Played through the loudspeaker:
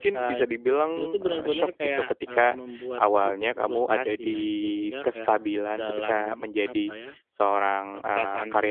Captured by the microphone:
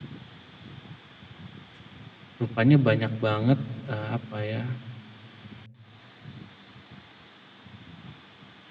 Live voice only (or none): rupanya banyak banget, eee, apa ya